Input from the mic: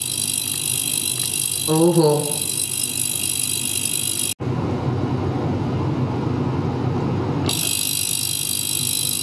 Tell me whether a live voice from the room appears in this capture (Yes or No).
Yes